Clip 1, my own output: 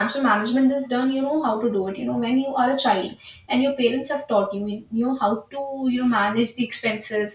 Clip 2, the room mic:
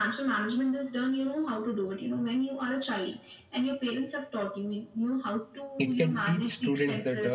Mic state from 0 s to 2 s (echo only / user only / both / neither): echo only